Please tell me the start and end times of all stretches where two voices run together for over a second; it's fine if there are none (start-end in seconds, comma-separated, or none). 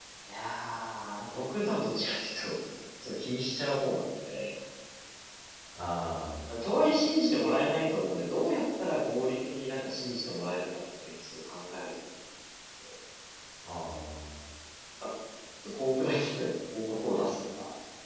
none